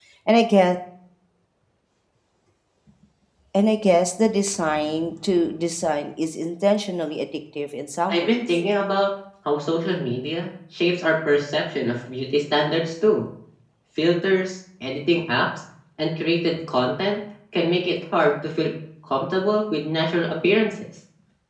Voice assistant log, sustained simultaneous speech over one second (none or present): none